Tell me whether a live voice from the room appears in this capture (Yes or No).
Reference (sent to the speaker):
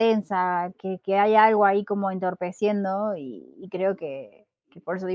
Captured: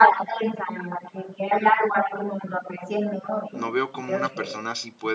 Yes